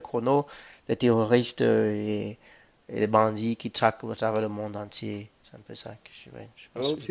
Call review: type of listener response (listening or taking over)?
taking over